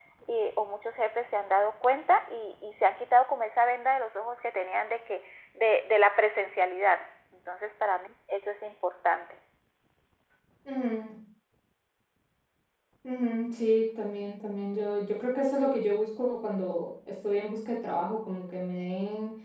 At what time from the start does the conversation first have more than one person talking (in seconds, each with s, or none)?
none